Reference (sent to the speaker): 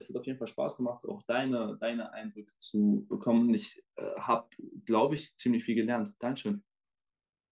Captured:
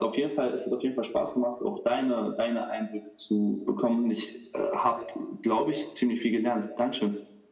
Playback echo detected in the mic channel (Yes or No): Yes